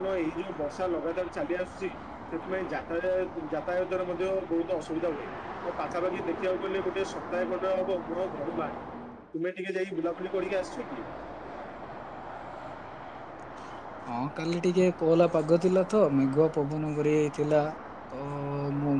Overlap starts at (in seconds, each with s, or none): none